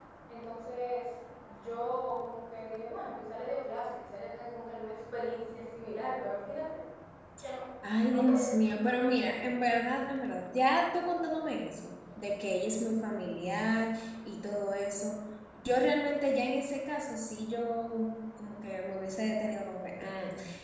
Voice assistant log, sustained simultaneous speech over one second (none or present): none